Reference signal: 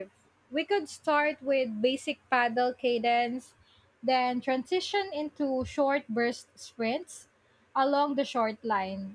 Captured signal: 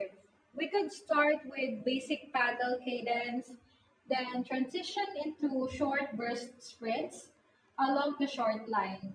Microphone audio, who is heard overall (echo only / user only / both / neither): echo only